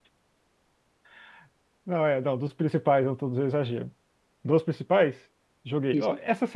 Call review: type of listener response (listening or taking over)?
listening